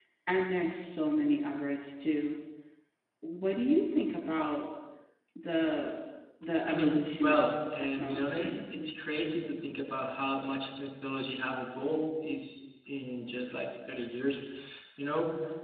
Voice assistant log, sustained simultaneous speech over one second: present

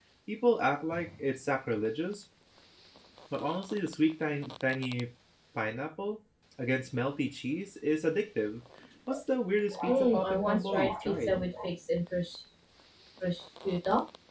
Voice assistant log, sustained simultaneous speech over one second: present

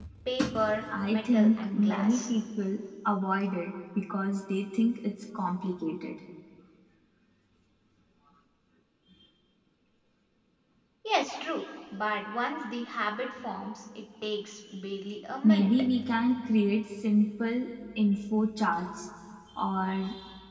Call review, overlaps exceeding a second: present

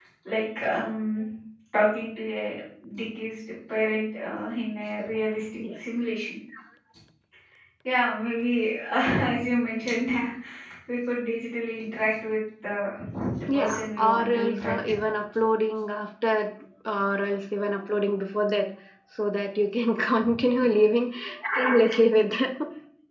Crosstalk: present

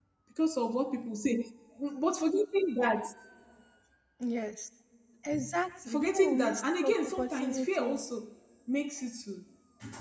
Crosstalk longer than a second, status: present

